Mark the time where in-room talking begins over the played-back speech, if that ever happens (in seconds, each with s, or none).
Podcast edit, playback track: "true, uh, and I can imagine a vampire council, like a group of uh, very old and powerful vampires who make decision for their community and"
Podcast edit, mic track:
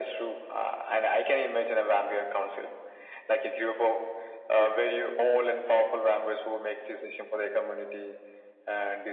none